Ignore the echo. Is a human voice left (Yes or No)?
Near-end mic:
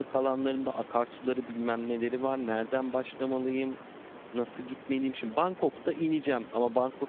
Yes